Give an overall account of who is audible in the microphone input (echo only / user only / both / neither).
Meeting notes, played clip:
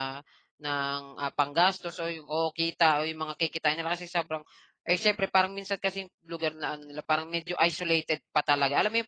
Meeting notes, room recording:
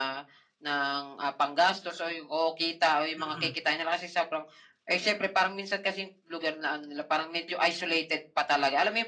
both